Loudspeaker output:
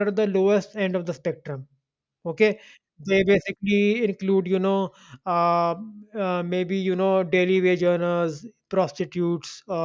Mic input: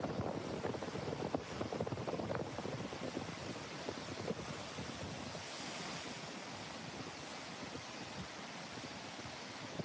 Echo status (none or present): none